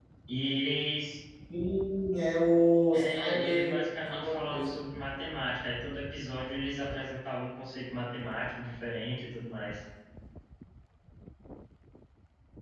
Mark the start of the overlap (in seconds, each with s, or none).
2.9 s